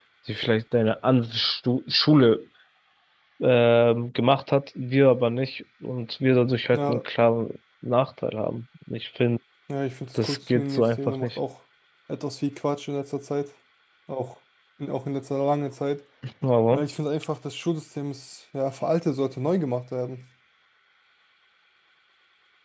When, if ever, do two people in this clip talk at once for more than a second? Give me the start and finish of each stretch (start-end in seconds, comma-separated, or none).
10.2-11.4